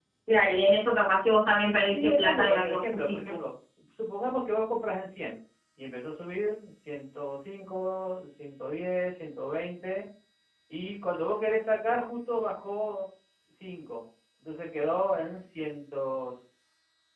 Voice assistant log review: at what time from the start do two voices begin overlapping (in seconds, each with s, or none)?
1.9 s